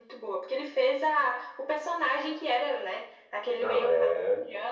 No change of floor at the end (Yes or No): Yes